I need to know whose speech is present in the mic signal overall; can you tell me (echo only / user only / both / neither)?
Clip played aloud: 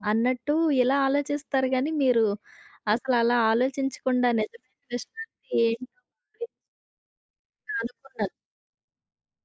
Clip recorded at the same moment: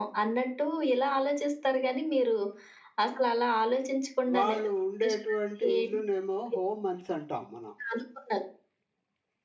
both